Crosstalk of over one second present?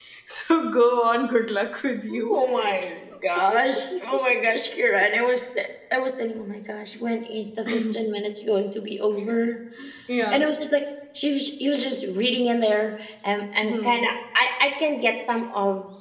No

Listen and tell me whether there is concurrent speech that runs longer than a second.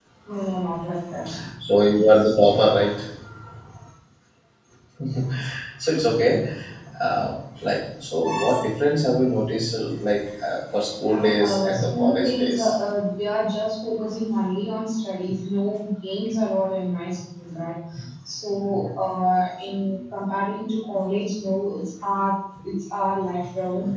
Yes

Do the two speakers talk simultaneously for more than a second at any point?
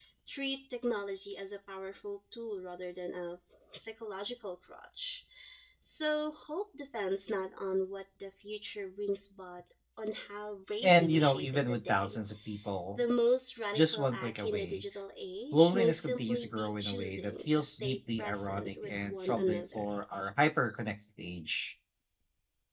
Yes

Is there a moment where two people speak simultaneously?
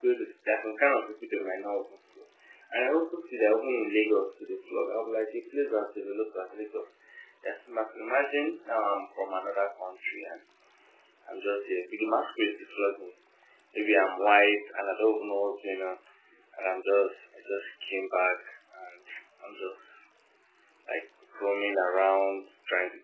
No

